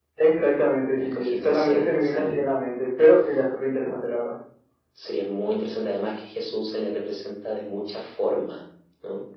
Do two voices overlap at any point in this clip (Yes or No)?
Yes